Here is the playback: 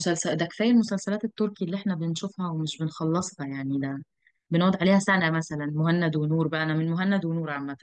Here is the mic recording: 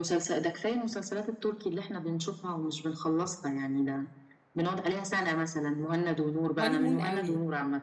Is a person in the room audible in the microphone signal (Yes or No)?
Yes